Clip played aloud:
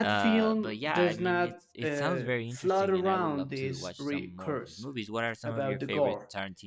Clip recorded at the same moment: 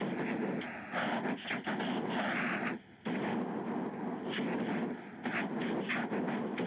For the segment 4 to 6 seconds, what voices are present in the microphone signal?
neither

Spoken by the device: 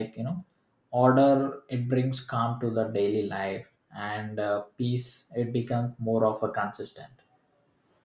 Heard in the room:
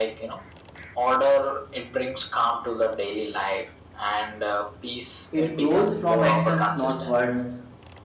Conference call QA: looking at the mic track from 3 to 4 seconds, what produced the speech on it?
echo only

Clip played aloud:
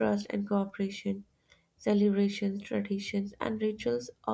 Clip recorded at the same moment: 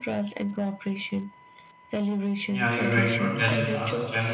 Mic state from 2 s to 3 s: both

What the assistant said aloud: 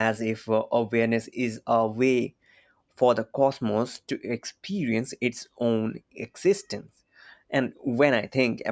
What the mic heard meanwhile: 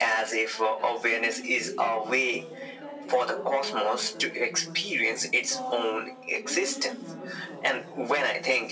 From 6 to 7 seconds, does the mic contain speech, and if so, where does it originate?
both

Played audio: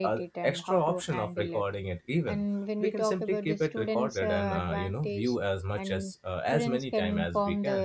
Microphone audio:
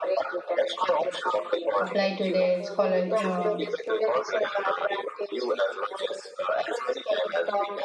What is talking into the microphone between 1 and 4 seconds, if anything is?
both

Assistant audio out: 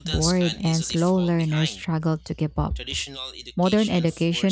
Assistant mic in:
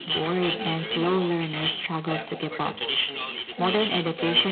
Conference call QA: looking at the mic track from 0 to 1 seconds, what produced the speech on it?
both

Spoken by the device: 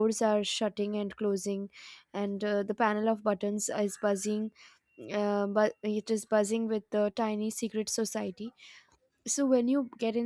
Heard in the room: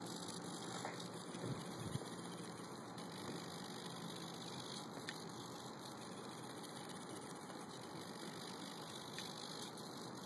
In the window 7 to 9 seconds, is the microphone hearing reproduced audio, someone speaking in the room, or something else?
neither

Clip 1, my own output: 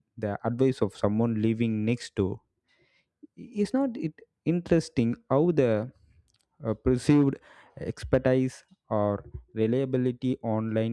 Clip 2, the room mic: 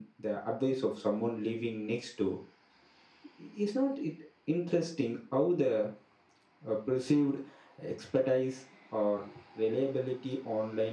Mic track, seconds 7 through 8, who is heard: echo only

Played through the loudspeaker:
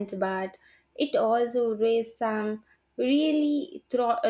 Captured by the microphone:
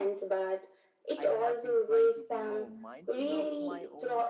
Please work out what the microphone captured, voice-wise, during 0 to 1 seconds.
echo only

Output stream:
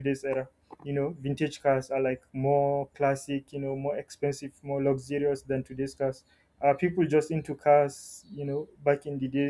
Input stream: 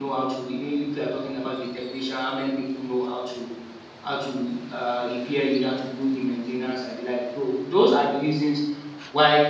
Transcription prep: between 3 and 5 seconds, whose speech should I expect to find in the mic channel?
user only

